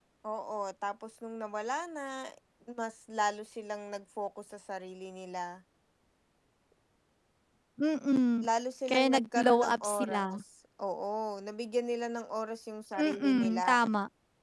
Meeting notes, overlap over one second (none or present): present